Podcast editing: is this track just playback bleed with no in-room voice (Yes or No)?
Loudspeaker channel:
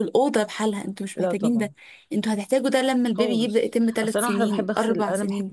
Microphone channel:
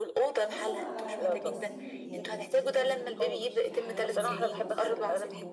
No